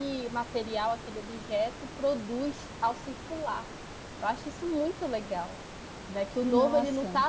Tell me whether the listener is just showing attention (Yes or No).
Yes